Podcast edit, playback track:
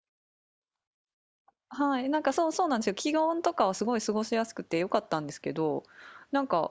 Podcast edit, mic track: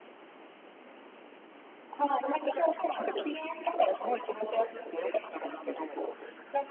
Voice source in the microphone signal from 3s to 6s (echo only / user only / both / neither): echo only